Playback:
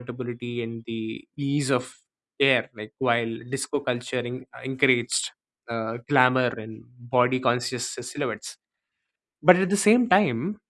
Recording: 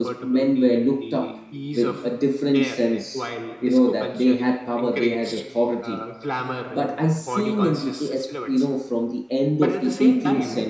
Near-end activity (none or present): present